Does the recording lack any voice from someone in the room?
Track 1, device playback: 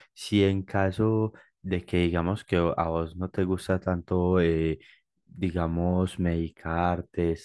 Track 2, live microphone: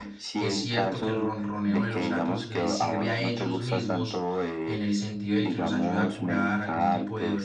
No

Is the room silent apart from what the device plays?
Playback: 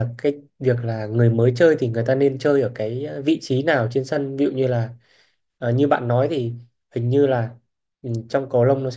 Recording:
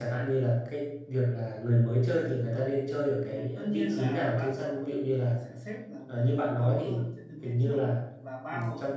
No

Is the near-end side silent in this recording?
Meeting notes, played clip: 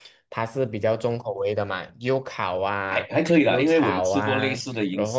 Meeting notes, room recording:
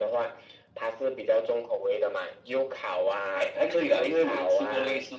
Yes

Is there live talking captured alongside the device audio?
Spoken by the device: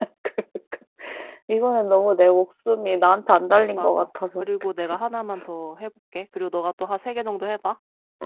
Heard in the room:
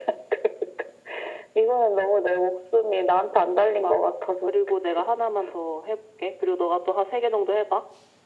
No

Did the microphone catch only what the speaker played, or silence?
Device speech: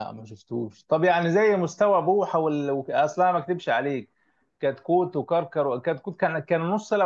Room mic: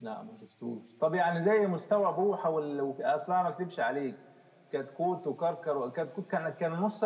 Yes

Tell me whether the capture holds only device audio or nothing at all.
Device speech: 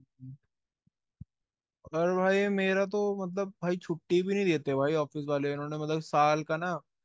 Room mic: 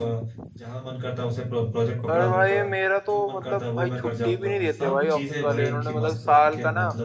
No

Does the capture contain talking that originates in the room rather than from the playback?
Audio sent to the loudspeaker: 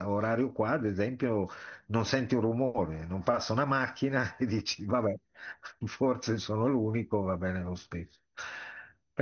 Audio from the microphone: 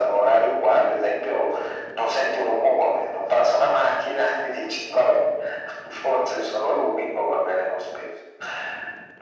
No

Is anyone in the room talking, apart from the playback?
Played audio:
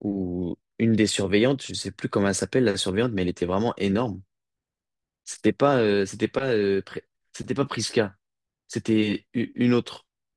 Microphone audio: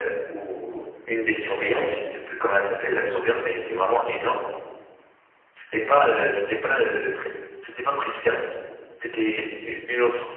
No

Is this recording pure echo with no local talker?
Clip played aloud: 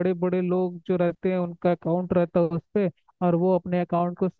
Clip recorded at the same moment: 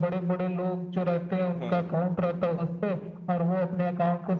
No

